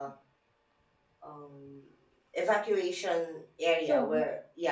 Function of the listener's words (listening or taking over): listening